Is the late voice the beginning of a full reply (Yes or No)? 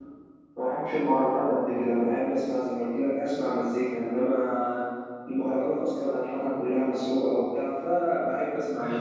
Yes